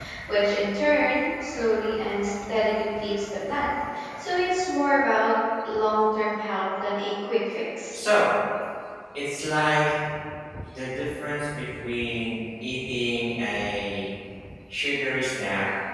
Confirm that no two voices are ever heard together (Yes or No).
Yes